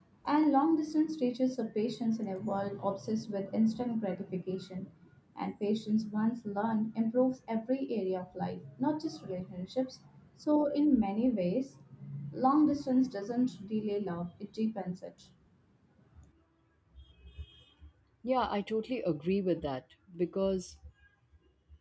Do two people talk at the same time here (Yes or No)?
No